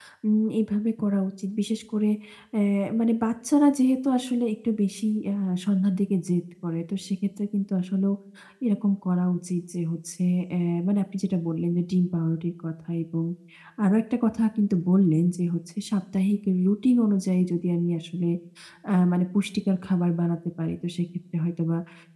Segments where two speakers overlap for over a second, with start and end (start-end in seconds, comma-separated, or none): none